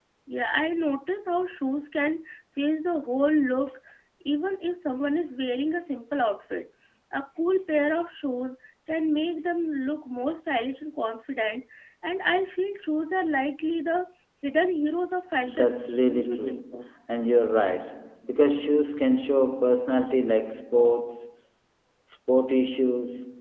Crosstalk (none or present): present